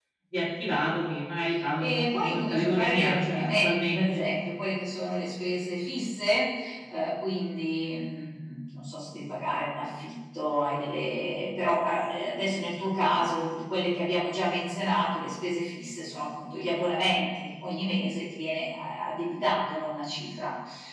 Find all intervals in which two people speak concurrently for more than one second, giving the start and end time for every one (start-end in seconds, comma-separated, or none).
1.8-4.2